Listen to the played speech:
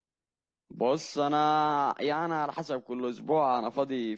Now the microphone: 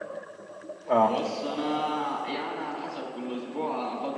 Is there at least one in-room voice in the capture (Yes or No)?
Yes